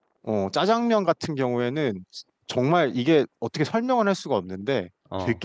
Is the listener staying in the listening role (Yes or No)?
Yes